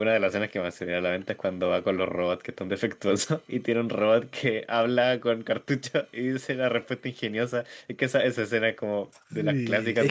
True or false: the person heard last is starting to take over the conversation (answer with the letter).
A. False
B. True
B